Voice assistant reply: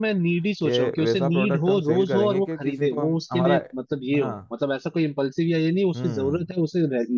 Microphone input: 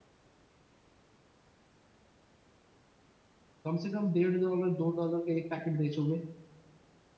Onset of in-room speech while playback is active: 4 s

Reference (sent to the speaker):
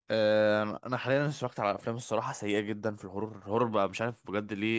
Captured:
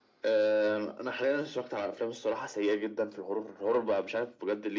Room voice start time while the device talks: none

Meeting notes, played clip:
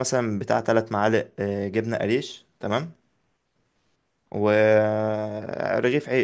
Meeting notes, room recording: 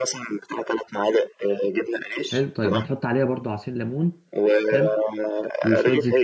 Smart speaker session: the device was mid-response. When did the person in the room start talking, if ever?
2 s

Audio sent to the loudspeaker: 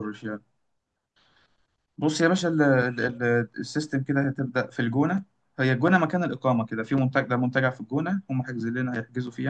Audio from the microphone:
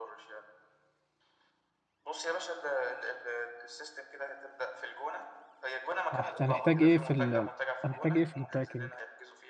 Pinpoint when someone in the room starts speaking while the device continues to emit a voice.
6 s

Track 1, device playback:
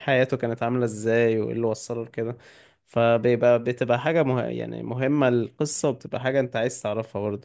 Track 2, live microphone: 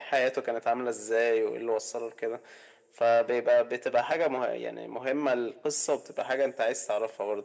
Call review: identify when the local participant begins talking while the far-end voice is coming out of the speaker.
none

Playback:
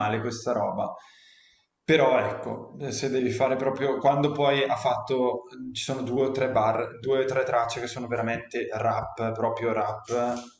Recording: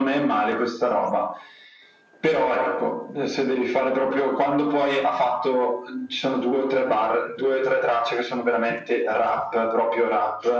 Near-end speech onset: none

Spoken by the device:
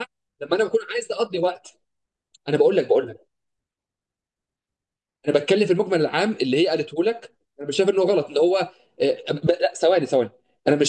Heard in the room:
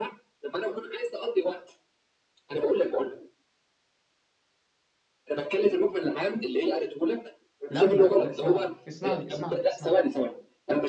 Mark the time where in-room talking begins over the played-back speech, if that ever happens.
8 s

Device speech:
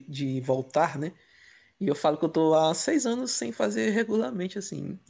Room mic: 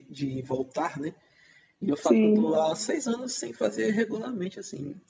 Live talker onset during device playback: 2 s

